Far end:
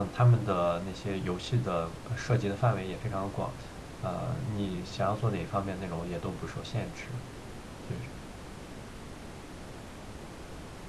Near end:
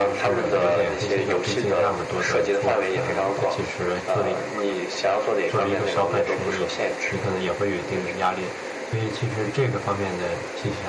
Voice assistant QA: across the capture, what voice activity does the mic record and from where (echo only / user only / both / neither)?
both